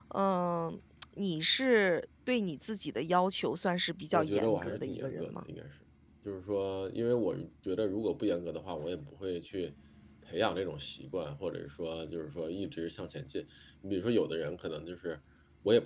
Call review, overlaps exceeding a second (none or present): present